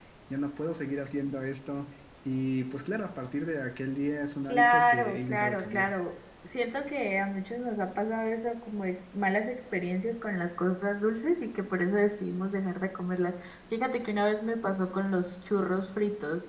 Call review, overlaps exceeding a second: present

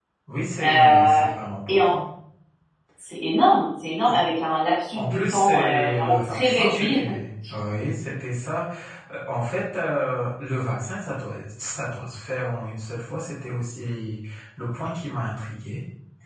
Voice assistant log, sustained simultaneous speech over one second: present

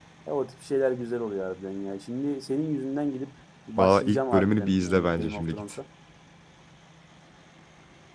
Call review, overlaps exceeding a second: present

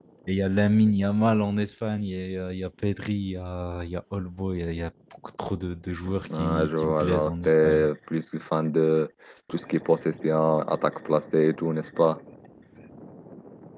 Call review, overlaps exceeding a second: present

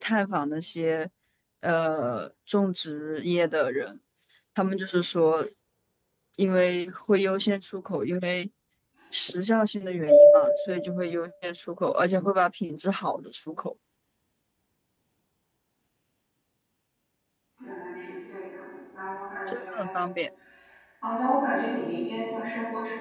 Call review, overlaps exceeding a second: none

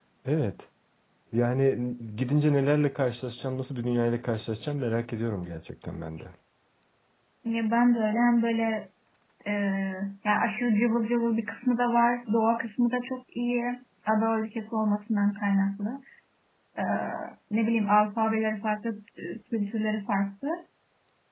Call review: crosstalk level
none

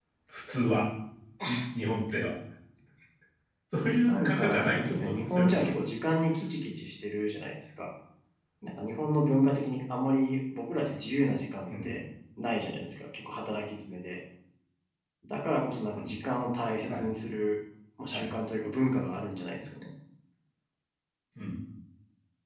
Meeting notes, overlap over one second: present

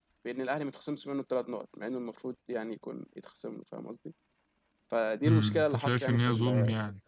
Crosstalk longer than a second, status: present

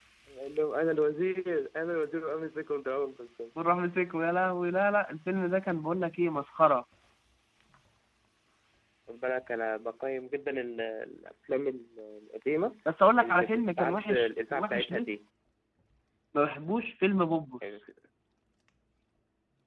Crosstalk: present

